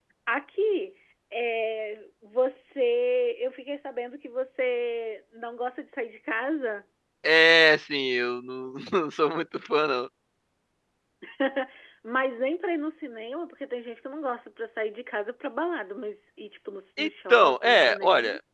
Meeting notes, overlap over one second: present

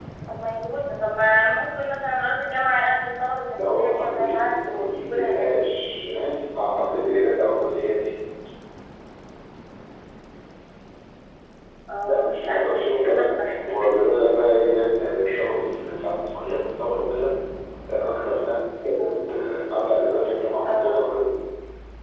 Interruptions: present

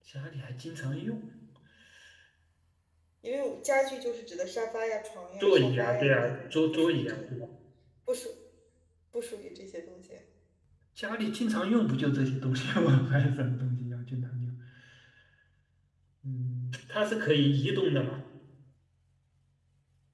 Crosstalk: present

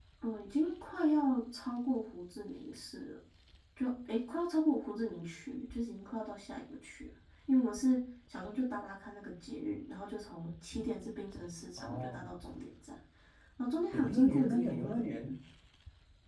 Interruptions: present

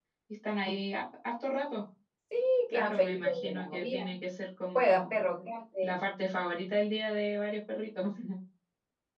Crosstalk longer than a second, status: present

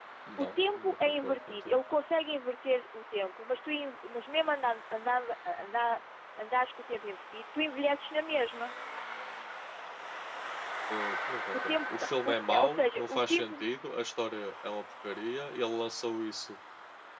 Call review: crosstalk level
present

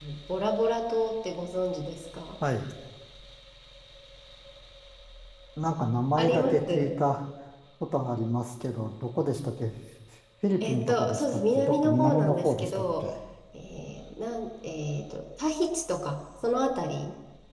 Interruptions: present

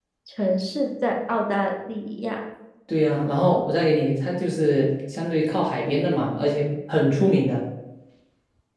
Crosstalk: none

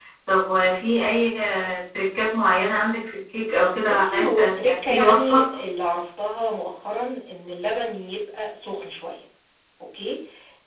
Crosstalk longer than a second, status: present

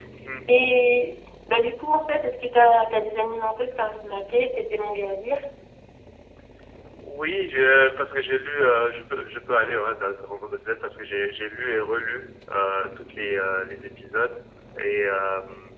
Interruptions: none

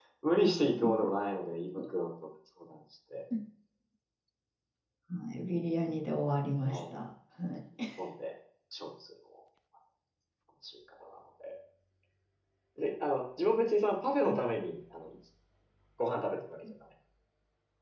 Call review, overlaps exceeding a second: none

